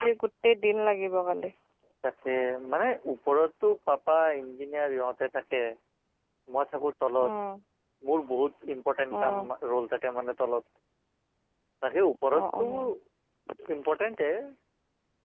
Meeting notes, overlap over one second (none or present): none